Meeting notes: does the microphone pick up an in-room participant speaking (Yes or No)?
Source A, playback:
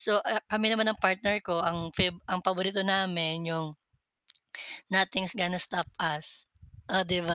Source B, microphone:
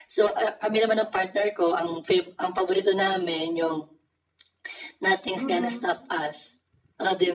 Yes